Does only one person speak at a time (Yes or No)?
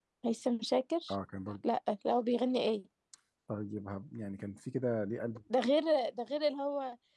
Yes